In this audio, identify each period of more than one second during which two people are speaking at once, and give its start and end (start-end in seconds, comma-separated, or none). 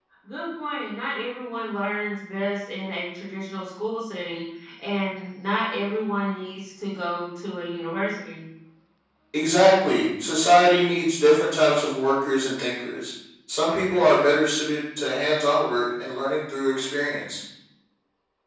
none